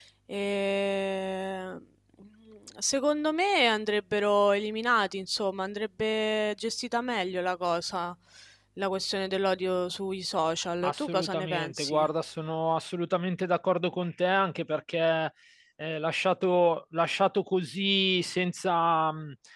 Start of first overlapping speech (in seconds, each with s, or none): 10.8 s